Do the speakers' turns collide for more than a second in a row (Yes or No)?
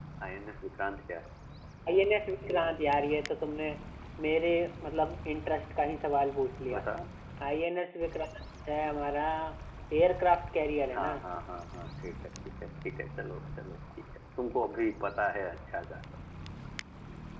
No